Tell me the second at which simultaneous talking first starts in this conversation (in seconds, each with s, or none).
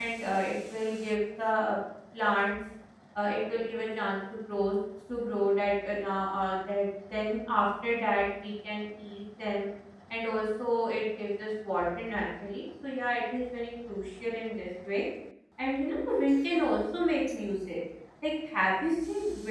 none